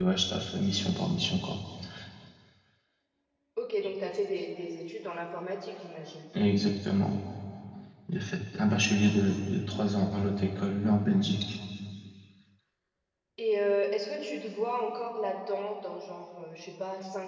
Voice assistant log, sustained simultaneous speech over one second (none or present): none